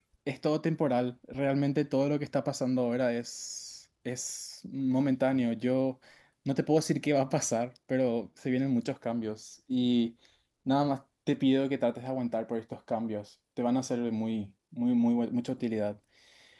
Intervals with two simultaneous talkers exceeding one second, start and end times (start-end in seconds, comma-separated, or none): none